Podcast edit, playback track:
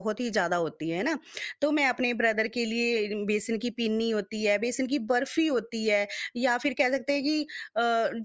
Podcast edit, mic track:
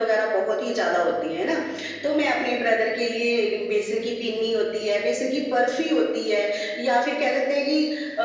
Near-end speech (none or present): none